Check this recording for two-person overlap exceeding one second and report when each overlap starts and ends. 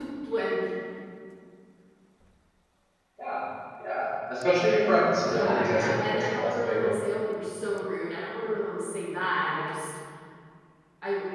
5.2-7.0

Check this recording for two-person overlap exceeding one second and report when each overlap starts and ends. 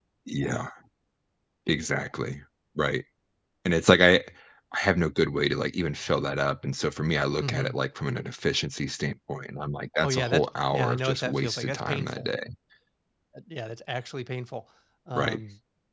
10.0-12.3

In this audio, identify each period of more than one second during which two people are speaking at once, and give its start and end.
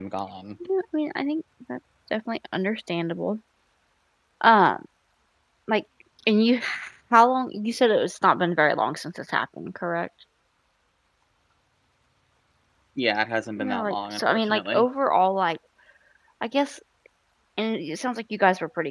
13.6-14.8

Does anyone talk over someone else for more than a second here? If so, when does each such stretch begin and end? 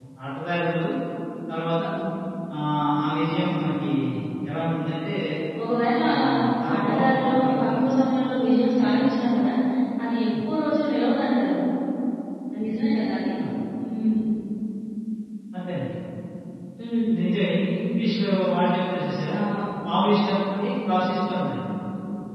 6.8-8.0

